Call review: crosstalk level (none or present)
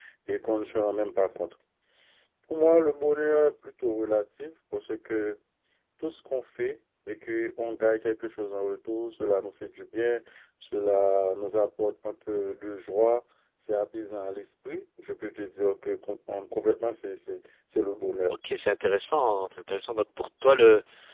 none